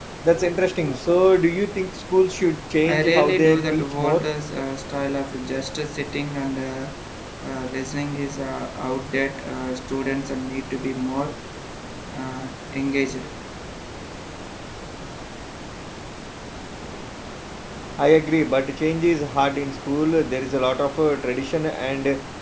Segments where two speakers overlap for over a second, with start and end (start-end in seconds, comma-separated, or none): 2.9-4.3